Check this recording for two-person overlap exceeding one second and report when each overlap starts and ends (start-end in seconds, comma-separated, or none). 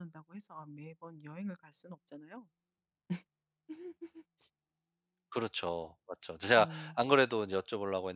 none